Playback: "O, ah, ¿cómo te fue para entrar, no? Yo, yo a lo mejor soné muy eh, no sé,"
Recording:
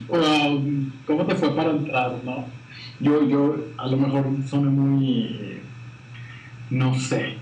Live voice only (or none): none